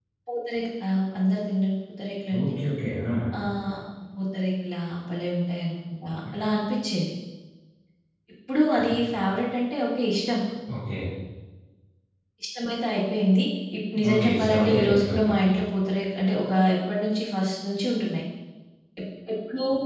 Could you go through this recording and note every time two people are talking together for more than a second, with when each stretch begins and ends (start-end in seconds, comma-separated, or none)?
14.1-15.4